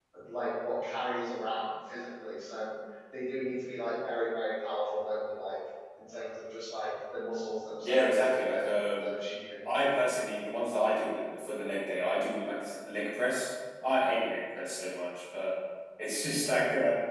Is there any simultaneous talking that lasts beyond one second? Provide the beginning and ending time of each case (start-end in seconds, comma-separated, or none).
7.8-9.1